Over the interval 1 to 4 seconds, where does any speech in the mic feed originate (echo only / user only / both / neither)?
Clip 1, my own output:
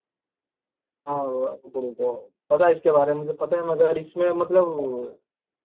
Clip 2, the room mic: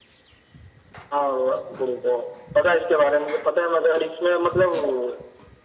echo only